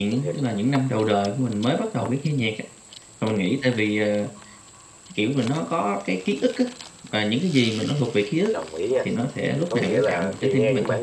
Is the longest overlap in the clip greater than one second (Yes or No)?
Yes